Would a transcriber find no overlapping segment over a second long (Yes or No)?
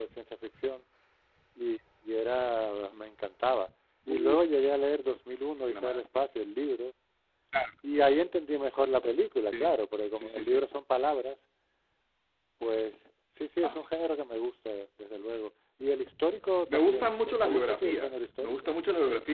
No